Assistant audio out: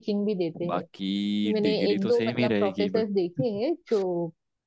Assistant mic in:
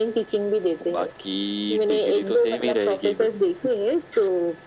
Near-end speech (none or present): none